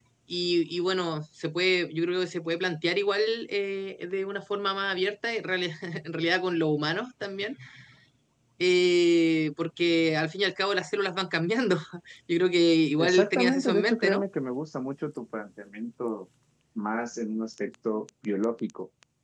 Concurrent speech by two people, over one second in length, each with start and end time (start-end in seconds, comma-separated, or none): 13.0-14.2